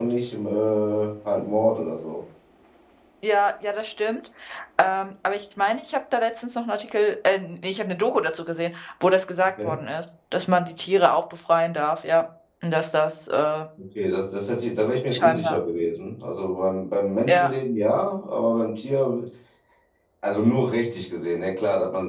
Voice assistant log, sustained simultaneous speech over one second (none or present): none